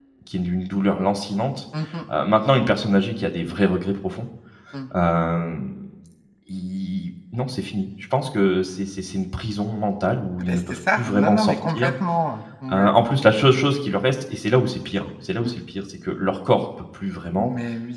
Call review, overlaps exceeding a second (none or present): present